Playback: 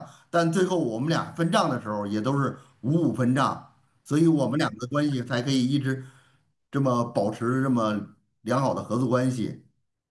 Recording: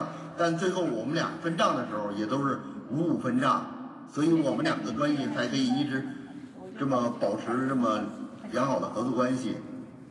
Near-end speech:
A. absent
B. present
B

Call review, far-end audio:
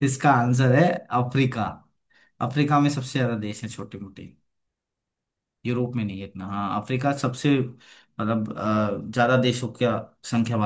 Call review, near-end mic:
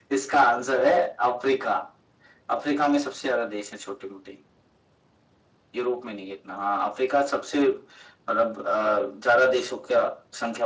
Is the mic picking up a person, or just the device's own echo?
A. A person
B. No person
B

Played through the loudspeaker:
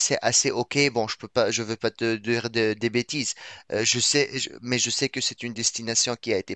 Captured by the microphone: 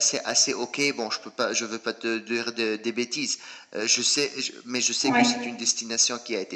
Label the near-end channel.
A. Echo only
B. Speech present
B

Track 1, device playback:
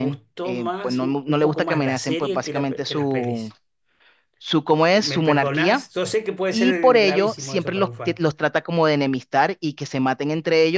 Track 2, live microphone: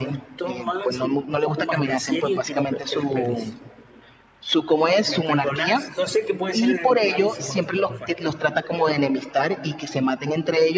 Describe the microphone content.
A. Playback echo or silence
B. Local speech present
A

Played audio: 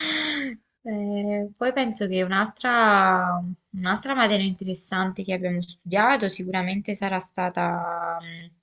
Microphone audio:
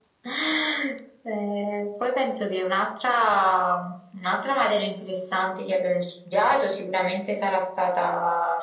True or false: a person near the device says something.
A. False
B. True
A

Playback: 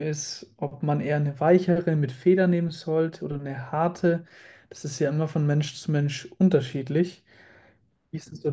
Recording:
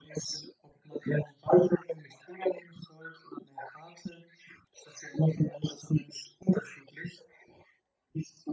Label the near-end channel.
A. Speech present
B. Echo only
B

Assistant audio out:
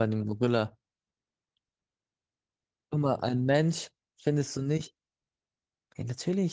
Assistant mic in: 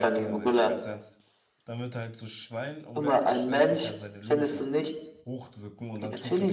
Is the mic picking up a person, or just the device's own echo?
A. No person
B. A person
B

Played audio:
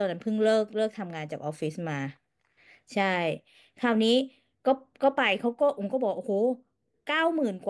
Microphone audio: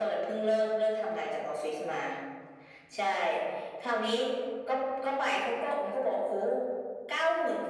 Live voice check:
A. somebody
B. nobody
B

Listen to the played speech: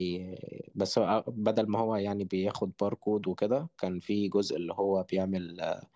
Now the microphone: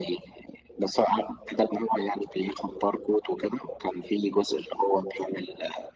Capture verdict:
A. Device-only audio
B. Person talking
A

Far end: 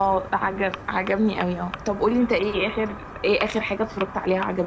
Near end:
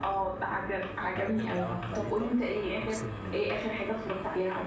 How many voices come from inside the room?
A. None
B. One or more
B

